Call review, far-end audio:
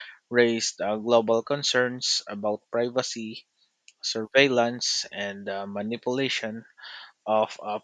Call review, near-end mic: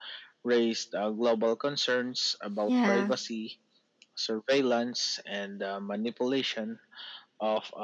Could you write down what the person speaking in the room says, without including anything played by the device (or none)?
Yeah,